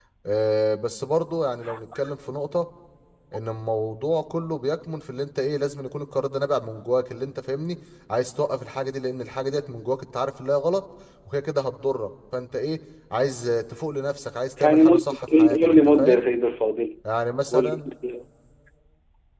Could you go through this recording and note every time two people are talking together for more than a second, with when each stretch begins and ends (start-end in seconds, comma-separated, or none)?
14.6-16.3